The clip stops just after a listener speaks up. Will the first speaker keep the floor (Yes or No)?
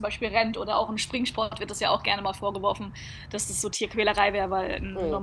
Yes